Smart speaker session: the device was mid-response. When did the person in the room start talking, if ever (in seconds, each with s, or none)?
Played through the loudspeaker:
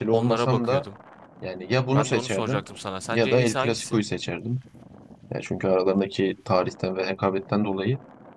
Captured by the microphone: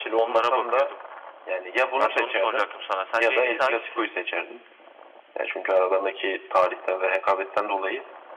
none